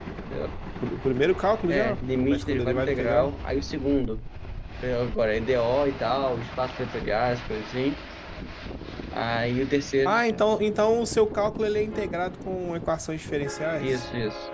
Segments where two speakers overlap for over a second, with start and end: 1.7-3.3

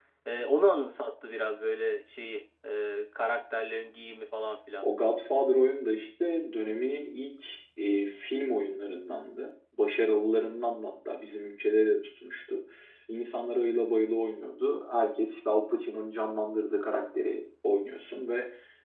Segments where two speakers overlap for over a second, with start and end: none

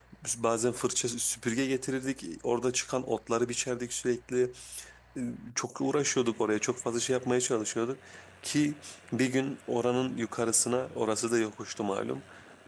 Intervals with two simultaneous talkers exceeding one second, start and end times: none

